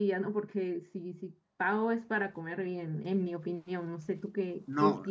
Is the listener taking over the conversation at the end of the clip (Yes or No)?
Yes